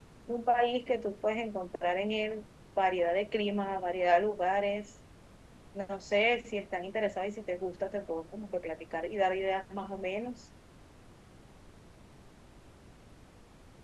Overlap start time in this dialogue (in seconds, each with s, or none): none